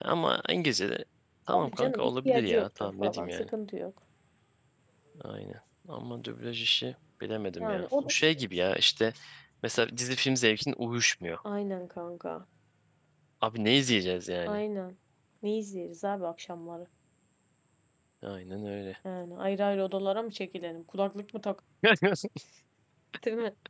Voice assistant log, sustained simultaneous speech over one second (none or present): present